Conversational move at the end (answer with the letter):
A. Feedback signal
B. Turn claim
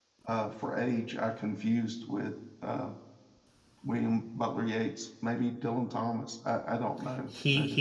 B